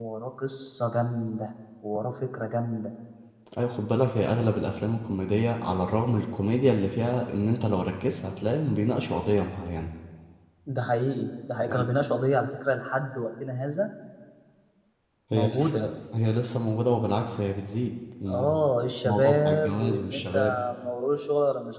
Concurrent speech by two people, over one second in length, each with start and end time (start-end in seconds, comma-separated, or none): 19.1-20.4